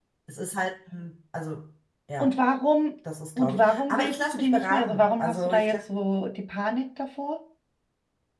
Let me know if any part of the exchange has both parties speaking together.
Yes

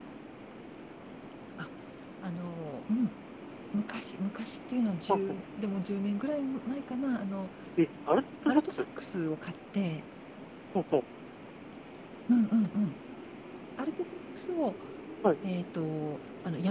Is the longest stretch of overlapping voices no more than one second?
Yes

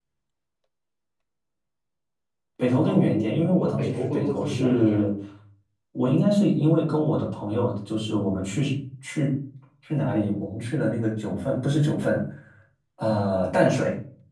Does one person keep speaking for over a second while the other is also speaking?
Yes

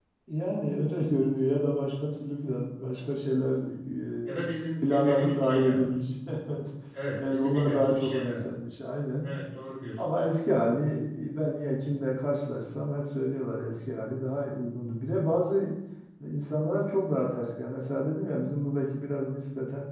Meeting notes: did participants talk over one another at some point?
Yes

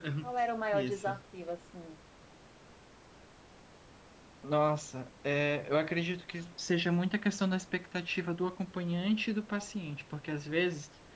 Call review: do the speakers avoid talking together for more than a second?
Yes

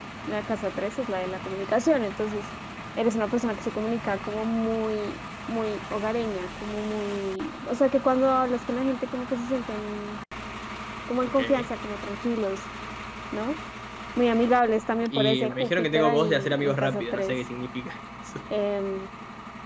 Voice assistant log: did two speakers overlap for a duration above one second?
Yes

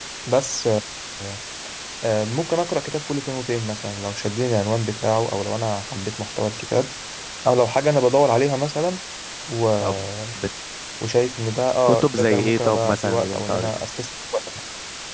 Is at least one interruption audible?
Yes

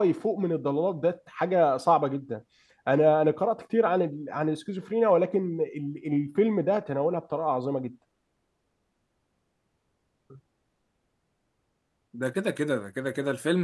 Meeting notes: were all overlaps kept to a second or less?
Yes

